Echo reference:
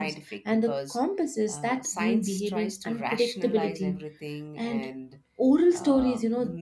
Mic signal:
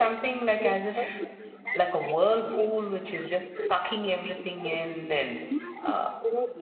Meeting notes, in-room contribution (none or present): present